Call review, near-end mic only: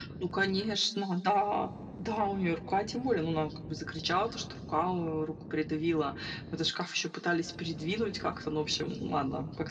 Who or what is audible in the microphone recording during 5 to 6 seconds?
echo only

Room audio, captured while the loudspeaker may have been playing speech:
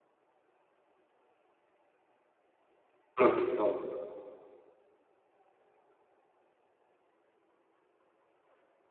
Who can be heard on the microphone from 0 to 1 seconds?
neither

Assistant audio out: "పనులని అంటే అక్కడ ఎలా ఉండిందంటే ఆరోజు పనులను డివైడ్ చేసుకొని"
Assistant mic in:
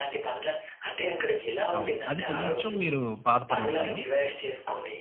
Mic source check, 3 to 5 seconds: both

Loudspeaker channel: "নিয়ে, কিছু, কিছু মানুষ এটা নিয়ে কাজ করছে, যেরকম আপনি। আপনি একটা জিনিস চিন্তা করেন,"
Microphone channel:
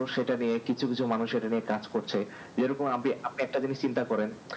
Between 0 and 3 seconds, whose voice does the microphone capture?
echo only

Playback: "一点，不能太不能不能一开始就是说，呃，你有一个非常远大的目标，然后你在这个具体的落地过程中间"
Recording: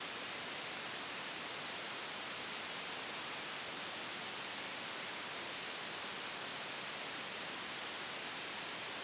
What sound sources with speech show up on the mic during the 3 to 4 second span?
neither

